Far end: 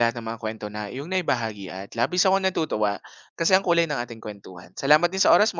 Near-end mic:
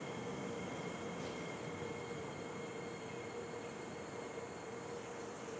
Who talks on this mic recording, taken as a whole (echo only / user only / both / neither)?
neither